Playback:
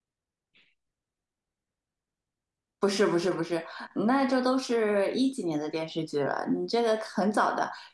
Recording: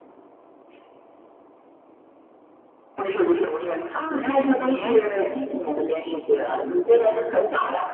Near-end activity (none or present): present